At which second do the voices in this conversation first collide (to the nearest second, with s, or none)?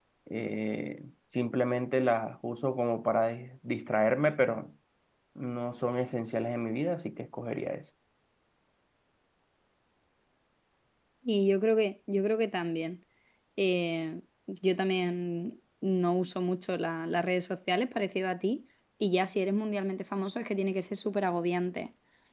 none